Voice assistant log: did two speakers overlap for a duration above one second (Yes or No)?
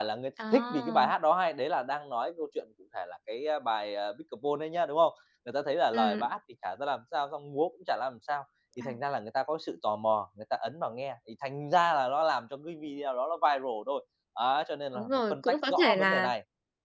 Yes